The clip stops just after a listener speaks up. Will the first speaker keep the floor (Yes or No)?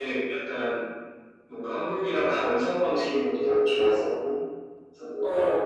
Yes